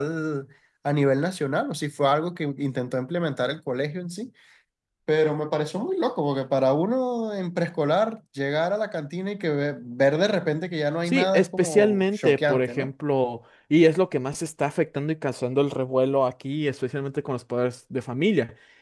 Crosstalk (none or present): present